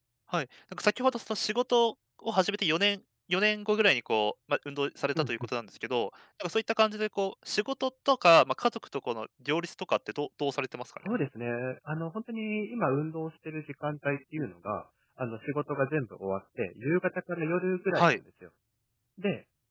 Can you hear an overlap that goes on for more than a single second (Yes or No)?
No